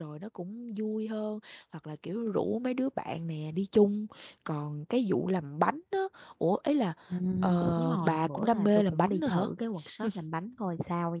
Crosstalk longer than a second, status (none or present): present